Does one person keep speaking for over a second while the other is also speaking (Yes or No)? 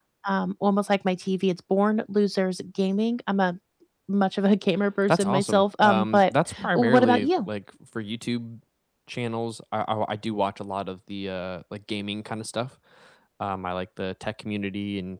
Yes